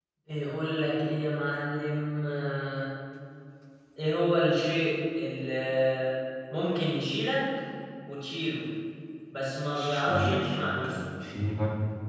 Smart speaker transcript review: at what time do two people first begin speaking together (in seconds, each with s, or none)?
9.8 s